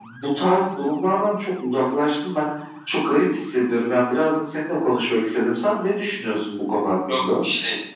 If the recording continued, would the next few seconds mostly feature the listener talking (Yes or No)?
Yes